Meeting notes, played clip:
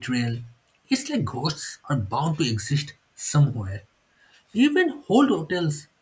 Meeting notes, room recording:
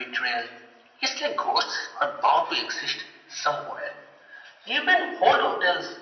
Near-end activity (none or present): none